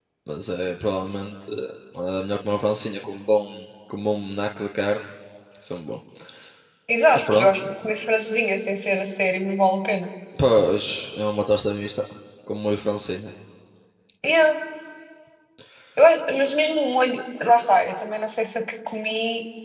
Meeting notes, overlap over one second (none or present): none